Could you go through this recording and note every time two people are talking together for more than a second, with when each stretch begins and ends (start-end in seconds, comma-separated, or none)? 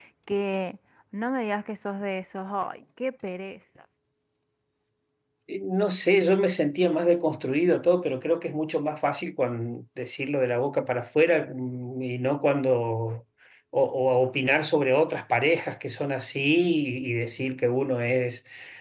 none